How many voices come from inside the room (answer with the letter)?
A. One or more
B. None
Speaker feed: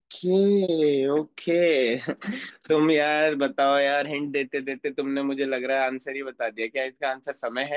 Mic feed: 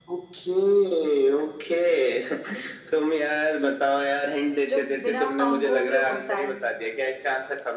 A